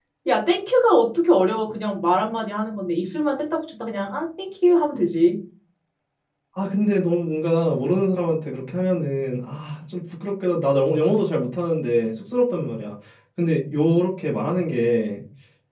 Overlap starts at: none

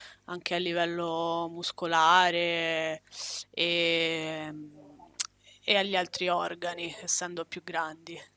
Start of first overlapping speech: none

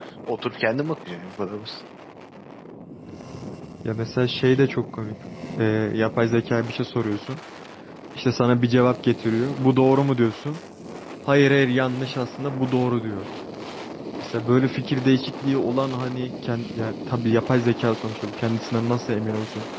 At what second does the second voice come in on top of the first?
none

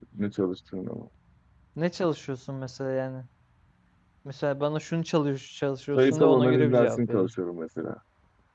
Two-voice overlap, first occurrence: 6.0 s

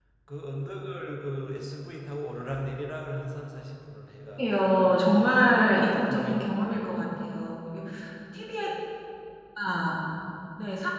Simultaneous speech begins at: 4.4 s

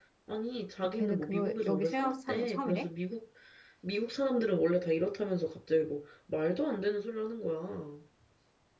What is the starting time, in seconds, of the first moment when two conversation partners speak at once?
0.9 s

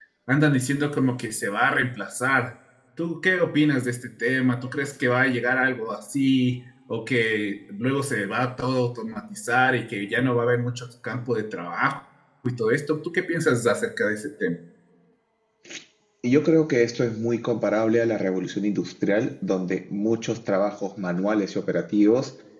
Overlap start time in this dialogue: none

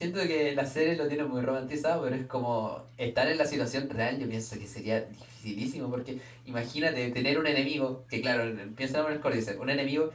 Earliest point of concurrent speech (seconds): none

